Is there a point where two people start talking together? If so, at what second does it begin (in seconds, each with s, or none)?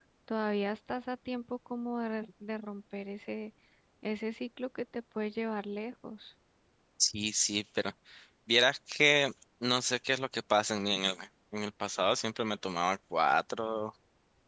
none